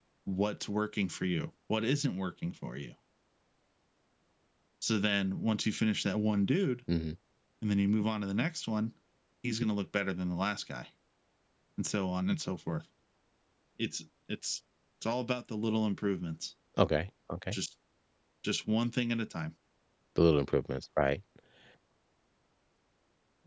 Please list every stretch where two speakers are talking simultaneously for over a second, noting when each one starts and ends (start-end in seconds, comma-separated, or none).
none